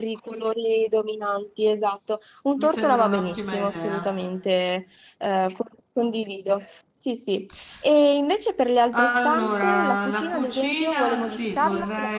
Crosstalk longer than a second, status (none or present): present